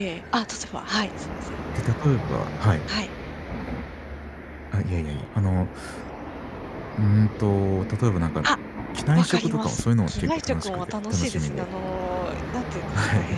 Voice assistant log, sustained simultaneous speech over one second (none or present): present